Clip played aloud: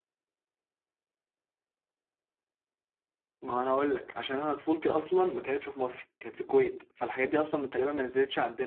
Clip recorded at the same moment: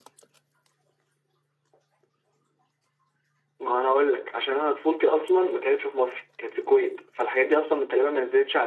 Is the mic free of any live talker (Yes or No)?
Yes